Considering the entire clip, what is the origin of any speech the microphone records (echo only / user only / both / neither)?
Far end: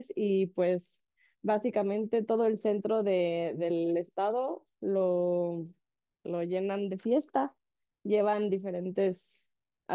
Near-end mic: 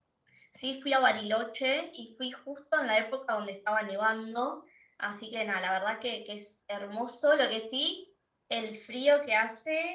user only